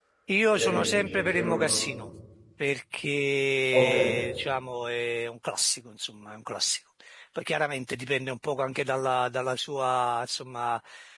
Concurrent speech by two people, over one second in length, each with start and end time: 0.5-1.9

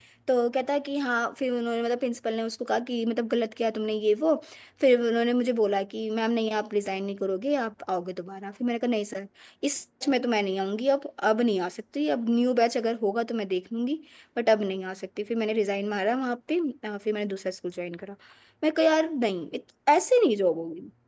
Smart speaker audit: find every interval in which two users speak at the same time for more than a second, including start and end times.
none

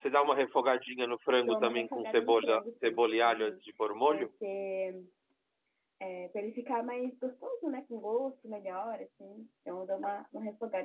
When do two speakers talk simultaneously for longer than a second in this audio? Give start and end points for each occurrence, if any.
1.4-3.6

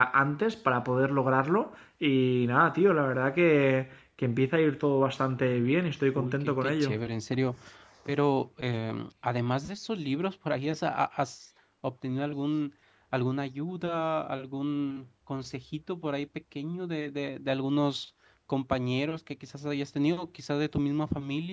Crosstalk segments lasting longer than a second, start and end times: 5.5-6.9

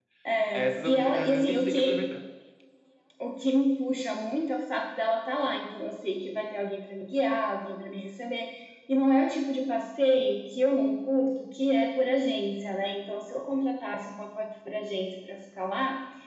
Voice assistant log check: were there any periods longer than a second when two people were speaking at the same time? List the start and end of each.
0.5-1.9

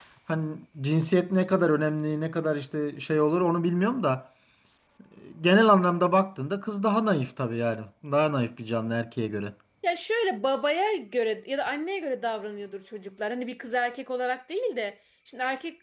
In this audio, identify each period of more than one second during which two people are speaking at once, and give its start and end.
none

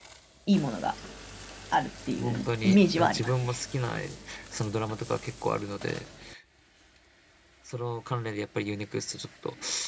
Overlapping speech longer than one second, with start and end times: 2.2-3.6

